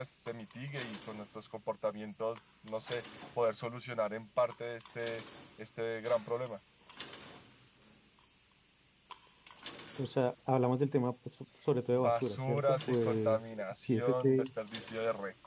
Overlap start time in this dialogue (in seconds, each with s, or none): 11.9 s